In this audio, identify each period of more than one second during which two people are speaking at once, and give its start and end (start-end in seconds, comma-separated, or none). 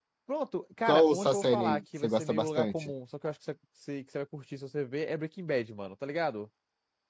0.8-2.9